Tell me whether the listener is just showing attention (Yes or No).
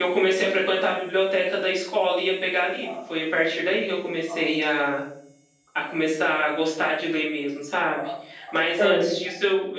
Yes